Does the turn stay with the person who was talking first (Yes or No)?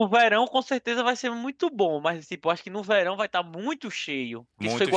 Yes